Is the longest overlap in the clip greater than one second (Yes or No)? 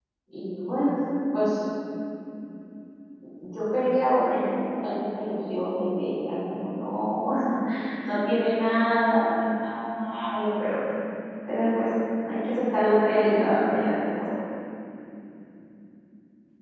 No